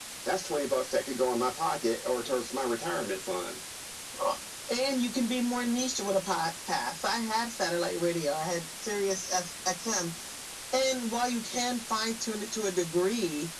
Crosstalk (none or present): none